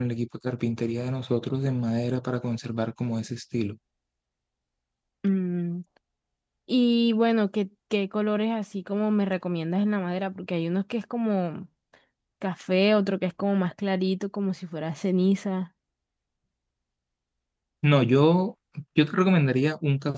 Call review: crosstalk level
none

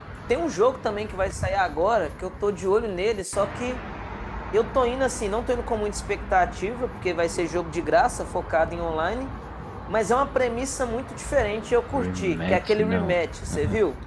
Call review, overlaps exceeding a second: present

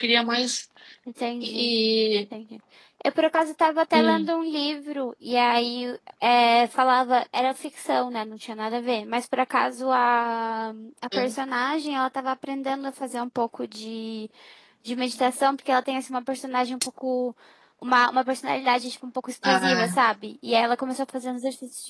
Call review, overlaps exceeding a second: none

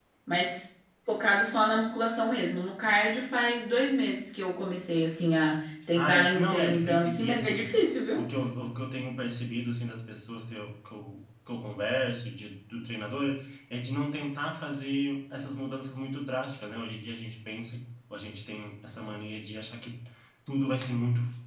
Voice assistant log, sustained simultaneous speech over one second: present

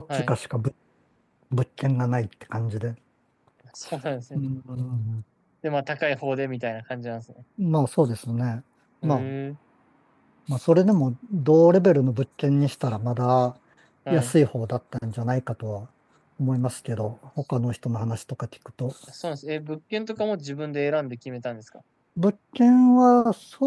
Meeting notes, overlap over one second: none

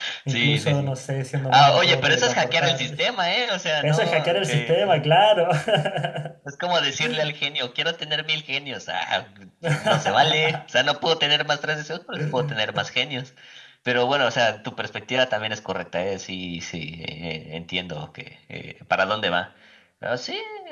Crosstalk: present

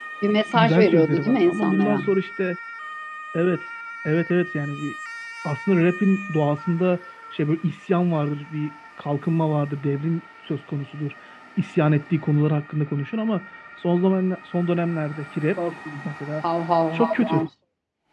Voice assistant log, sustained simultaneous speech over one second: present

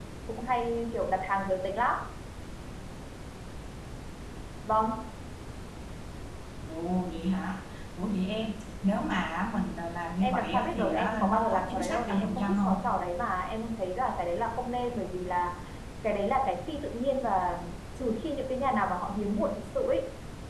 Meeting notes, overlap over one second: present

